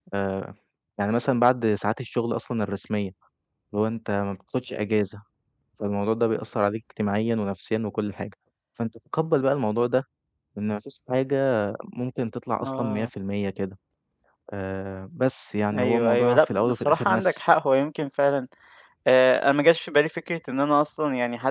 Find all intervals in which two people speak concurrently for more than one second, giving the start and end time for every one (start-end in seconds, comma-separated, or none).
15.8-17.4